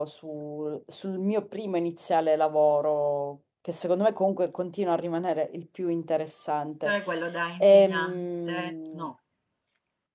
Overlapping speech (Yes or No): Yes